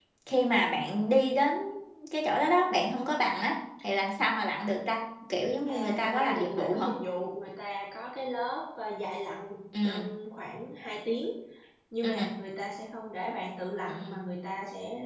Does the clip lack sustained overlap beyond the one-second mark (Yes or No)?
No